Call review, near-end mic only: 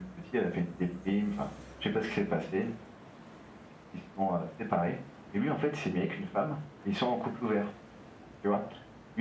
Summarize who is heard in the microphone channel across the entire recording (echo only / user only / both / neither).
echo only